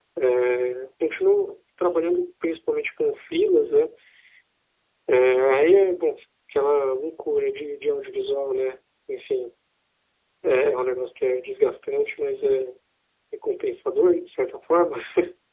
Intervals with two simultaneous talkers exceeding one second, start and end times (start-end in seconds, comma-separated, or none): none